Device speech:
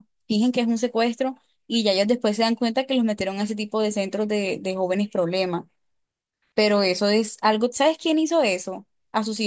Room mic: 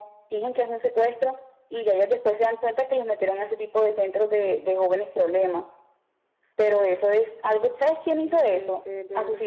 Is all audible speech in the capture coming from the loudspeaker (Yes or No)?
No